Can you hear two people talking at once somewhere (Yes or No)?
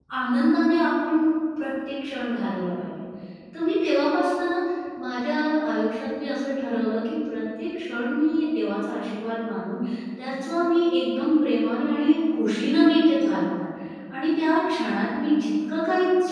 No